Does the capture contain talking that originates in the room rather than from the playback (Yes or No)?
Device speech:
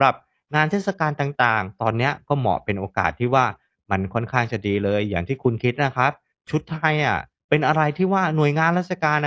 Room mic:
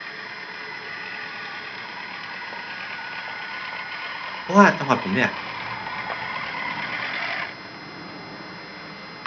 Yes